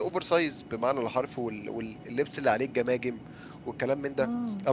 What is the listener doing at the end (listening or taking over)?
listening